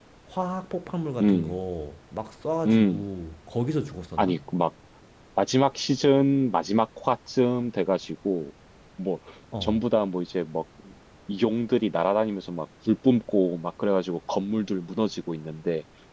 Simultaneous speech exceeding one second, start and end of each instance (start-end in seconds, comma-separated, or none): none